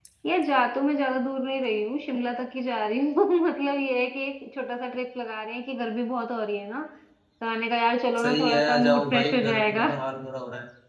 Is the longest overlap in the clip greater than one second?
Yes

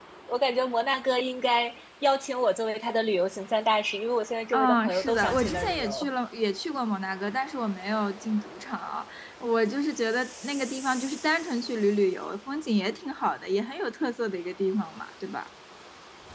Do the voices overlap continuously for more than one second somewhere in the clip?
Yes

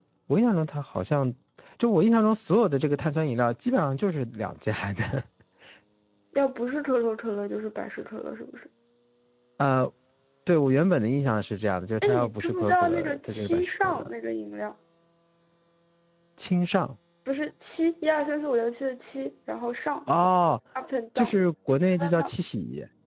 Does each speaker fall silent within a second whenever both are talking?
No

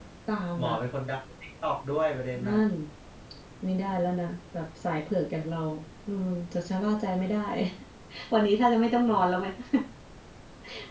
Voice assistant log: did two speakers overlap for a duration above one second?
No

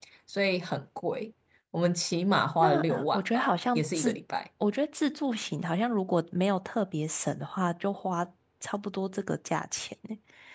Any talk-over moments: Yes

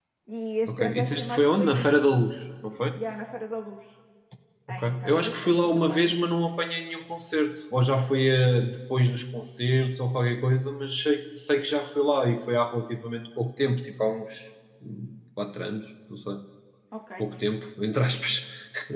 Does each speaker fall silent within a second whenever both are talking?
No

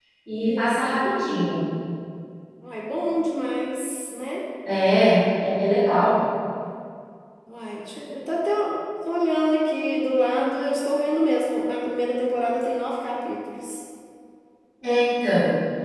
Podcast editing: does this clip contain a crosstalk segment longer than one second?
No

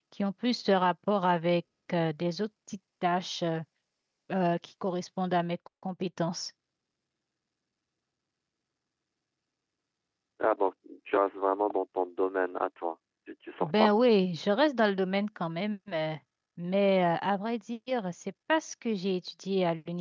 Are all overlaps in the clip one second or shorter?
Yes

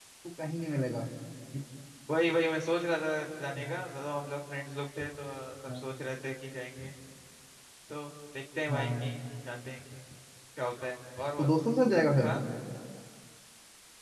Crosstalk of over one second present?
No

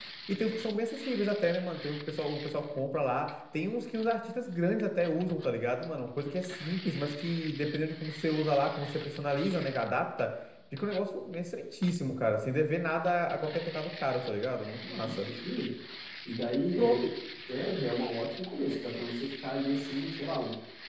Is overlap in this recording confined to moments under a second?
Yes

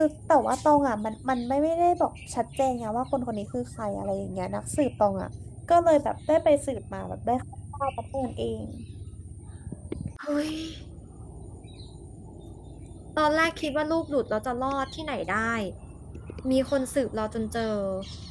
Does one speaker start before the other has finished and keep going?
No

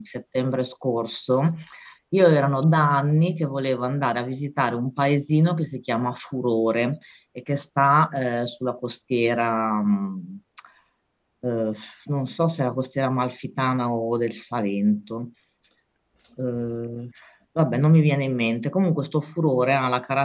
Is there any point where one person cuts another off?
No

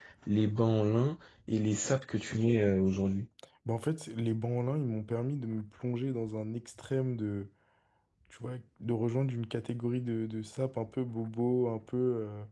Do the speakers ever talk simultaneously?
No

